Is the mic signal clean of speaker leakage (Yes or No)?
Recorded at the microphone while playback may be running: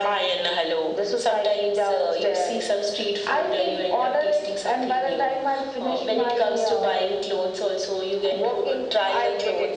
No